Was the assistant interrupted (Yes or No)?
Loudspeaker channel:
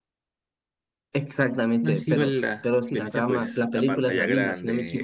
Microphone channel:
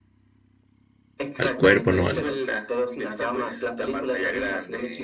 Yes